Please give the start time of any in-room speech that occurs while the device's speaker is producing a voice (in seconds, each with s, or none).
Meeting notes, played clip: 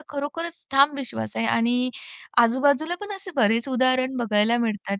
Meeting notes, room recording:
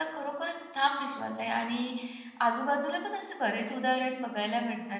none